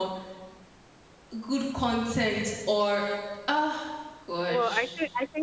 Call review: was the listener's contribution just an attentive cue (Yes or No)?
No